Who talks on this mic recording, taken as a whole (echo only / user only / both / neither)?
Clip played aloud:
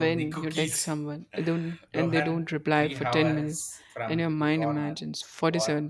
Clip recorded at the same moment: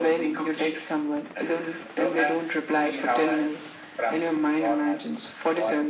echo only